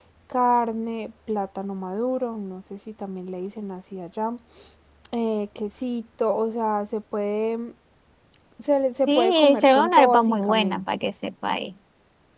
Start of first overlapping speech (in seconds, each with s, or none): 9.1 s